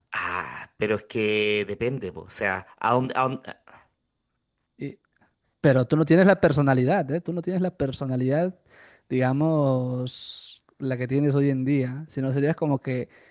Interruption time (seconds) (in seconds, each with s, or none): none